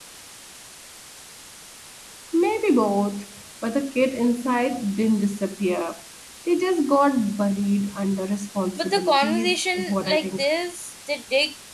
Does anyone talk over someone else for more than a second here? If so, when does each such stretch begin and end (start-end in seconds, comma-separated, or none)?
8.8-10.4